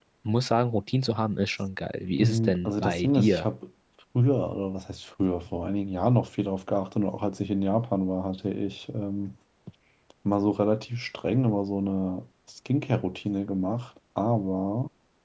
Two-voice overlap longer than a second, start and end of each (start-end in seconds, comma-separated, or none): 2.2-3.5